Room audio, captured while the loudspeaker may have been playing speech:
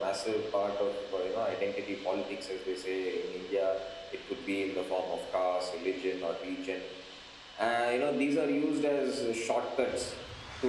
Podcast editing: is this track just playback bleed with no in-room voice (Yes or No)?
Yes